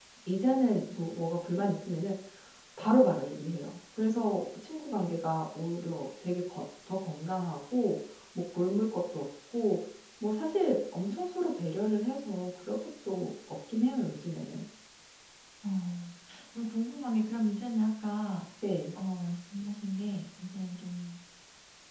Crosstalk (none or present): none